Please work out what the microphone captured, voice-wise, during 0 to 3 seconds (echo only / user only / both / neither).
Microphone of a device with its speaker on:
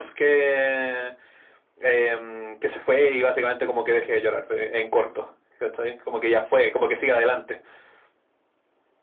echo only